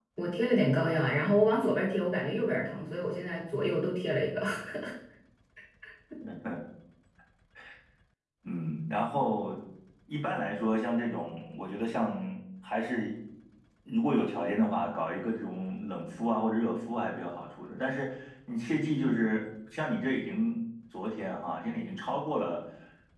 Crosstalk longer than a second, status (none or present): none